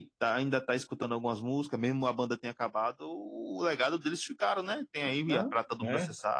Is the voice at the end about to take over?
No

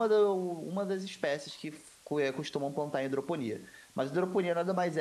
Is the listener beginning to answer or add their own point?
No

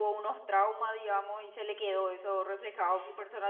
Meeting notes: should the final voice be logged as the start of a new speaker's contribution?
No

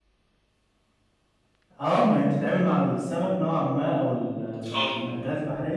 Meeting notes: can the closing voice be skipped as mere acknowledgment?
Yes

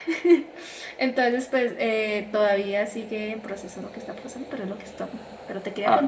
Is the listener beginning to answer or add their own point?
Yes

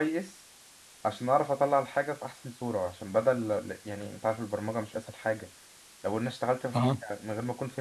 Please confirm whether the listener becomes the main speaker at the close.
No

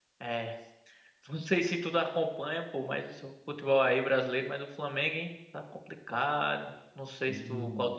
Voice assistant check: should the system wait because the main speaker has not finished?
Yes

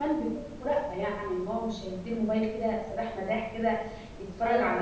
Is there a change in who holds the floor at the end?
No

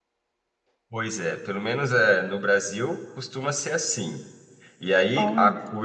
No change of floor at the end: Yes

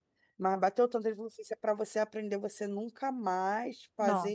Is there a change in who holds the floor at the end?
No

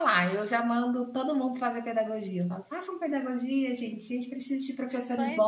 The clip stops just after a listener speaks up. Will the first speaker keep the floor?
No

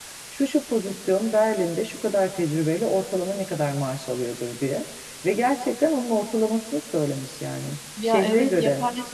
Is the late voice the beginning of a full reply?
Yes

